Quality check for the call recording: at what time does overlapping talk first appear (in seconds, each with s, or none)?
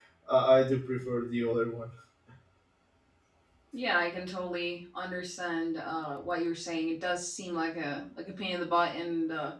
none